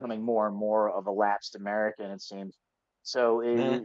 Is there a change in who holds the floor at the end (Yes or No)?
No